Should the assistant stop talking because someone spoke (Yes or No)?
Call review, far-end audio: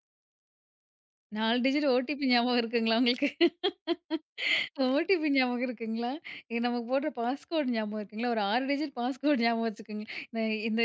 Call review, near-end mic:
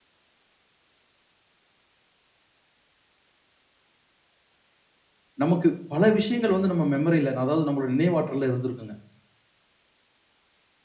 Yes